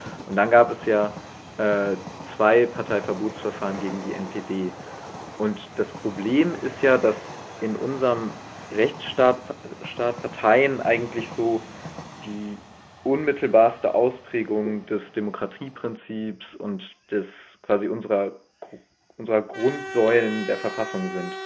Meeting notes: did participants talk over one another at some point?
No

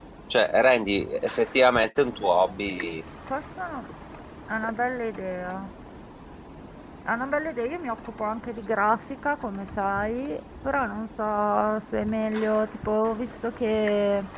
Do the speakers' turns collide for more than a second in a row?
No

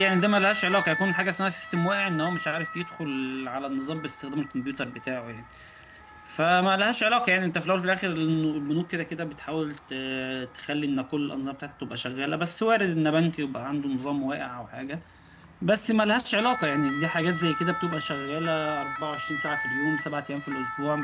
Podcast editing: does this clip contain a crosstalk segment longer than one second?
No

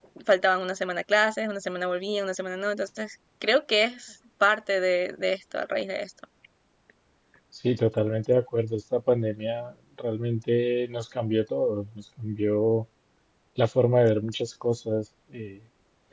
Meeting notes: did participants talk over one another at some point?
No

